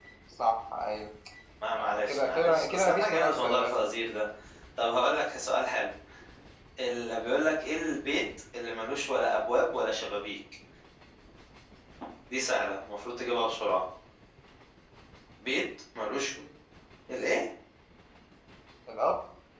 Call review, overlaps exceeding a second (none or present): present